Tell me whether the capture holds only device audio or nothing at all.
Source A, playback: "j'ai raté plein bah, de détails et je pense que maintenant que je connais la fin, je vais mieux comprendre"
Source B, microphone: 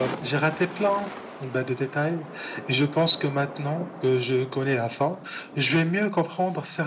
Yes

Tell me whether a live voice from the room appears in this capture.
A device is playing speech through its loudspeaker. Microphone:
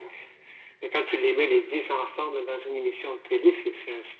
No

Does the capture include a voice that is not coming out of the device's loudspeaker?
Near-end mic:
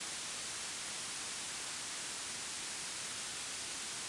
No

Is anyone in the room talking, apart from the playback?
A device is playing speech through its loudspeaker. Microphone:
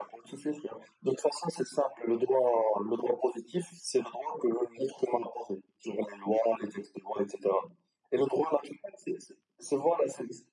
No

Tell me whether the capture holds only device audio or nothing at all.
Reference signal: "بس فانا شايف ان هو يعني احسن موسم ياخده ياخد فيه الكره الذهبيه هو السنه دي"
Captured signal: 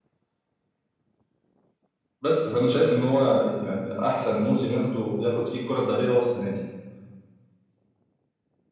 Yes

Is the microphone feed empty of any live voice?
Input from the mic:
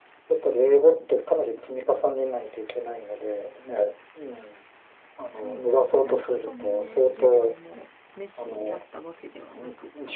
No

